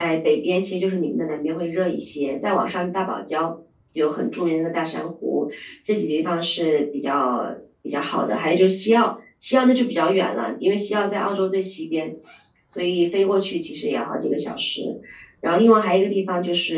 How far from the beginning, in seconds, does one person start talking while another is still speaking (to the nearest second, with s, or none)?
none